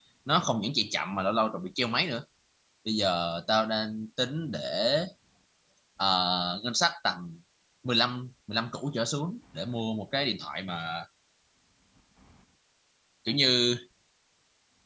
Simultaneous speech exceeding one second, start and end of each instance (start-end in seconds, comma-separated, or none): none